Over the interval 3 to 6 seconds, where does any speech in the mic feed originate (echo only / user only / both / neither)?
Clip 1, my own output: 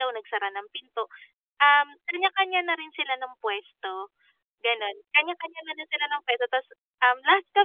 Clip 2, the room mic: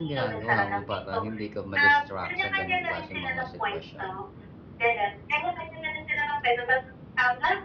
both